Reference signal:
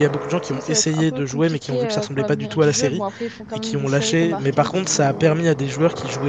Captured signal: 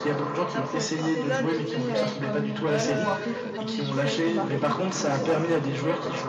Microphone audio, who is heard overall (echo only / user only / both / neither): both